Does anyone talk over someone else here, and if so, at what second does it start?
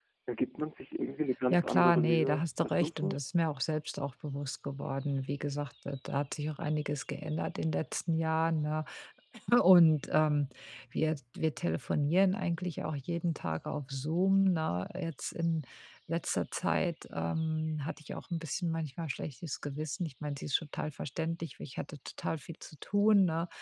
1.5 s

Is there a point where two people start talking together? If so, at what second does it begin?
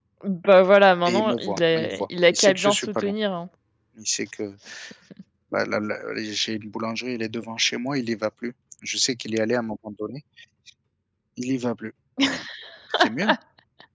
1.0 s

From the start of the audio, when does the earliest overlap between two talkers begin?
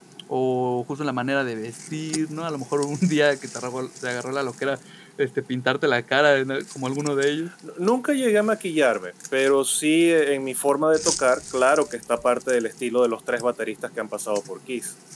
none

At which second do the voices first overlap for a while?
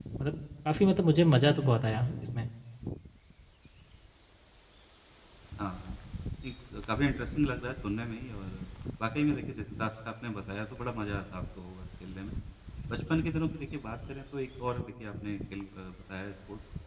none

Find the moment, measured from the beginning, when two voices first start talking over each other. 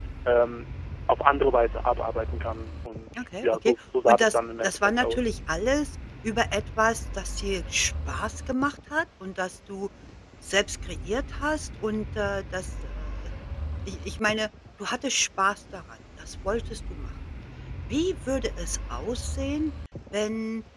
3.2 s

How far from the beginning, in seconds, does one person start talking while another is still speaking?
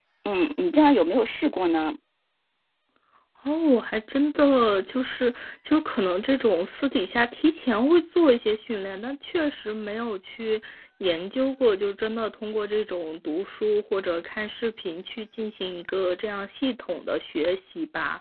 none

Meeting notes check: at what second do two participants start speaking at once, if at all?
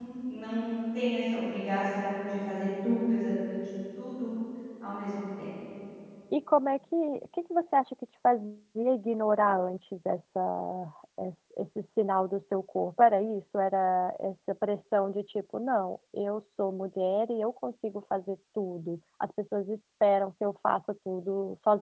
none

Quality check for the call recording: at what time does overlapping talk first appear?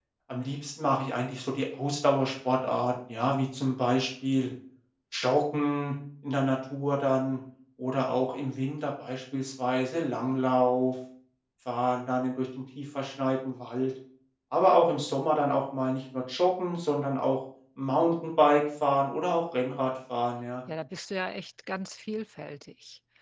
none

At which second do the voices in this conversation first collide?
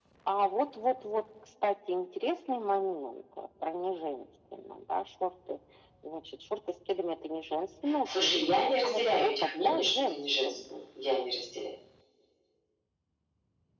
8.1 s

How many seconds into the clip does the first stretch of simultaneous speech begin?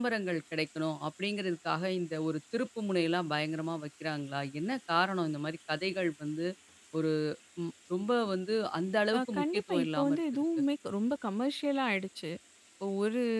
9.1 s

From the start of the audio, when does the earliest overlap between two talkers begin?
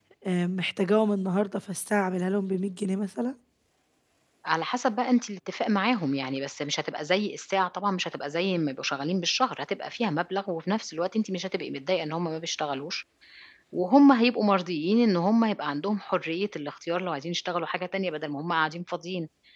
none

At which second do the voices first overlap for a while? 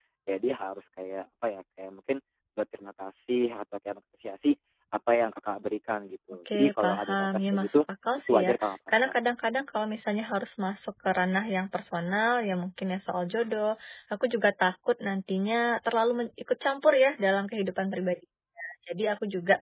6.5 s

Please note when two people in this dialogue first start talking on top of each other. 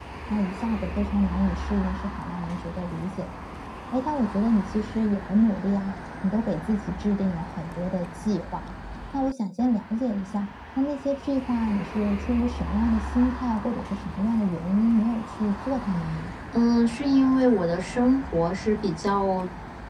none

